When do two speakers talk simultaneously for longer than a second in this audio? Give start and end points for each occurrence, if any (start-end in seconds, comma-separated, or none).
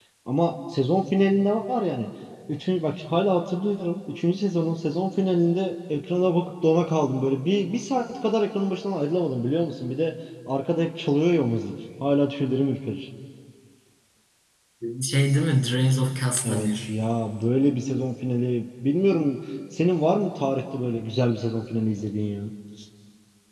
none